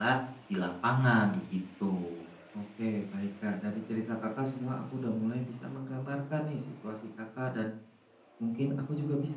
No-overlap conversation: Yes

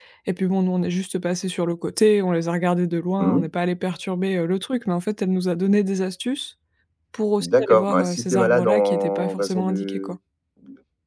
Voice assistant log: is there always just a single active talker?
No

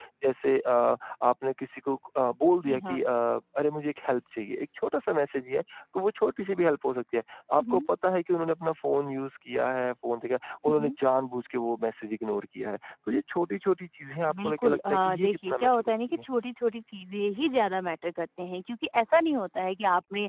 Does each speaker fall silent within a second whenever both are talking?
No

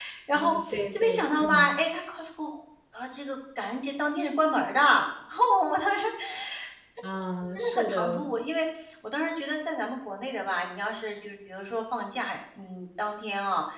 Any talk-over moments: Yes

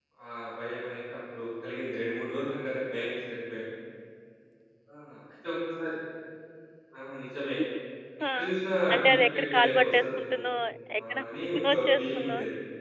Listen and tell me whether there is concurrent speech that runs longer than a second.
Yes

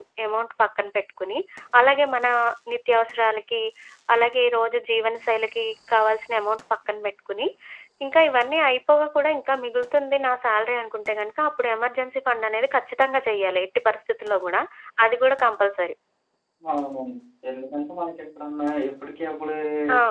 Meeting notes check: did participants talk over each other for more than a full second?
No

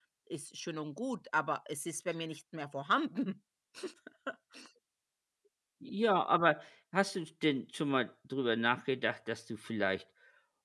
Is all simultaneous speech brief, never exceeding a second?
Yes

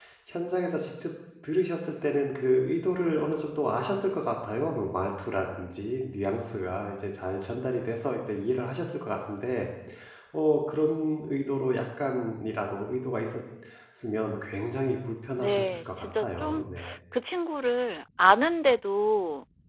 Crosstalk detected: Yes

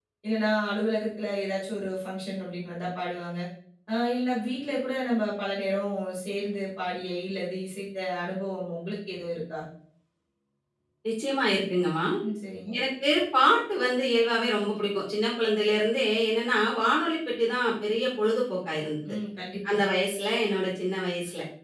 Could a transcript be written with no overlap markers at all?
Yes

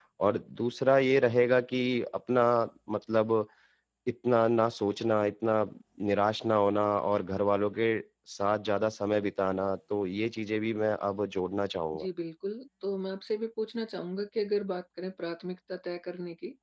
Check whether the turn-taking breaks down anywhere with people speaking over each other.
No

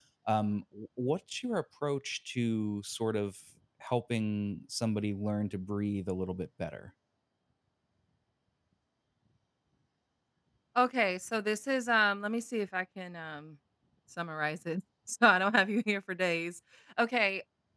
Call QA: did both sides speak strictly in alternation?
Yes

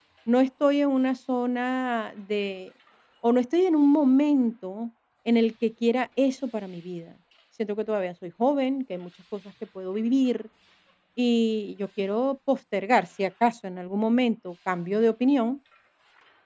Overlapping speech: No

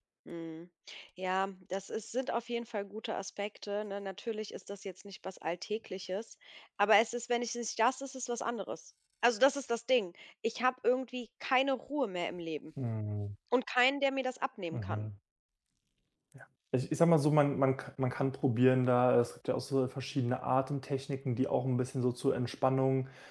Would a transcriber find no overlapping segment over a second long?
Yes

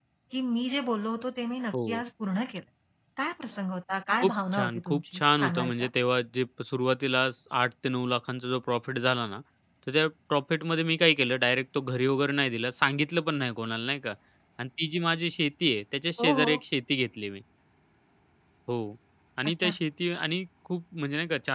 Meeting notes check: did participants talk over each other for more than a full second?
Yes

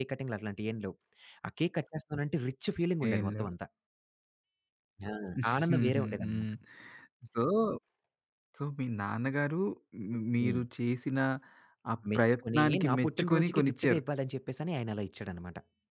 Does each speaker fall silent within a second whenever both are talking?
No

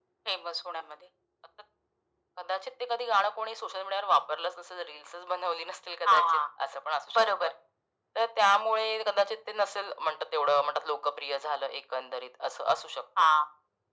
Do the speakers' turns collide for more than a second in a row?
No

